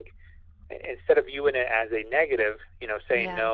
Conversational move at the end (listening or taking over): listening